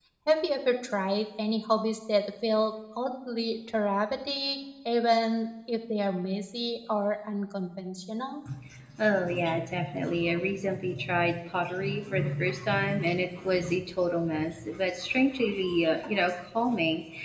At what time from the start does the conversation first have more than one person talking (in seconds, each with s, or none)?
none